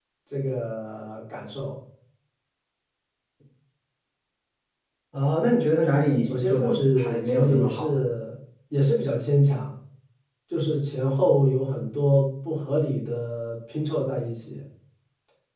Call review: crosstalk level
present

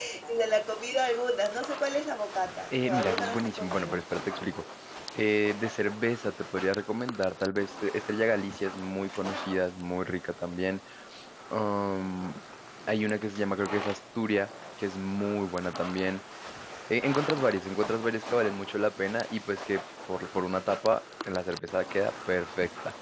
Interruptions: present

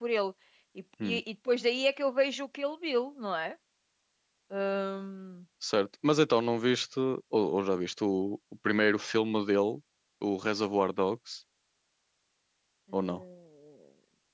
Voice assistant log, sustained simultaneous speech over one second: none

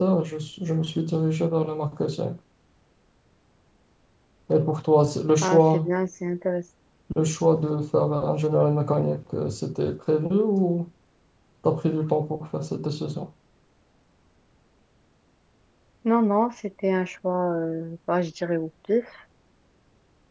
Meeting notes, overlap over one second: none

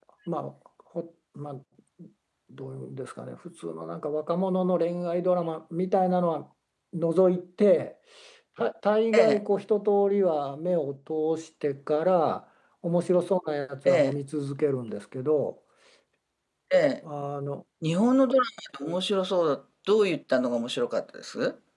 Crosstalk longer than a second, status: none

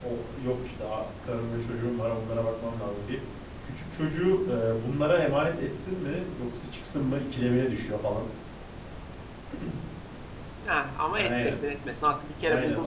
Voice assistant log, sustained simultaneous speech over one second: none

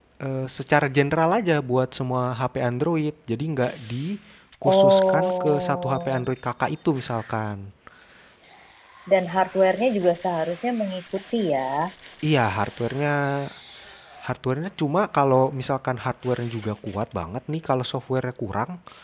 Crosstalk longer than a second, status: present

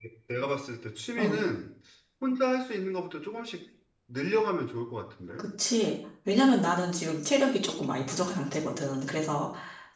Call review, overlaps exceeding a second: none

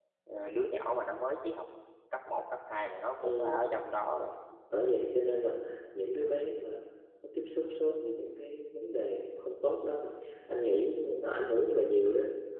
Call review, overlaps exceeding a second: none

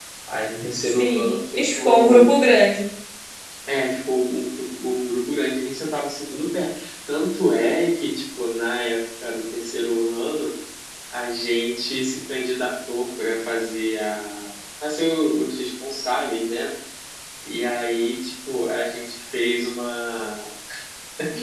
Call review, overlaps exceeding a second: present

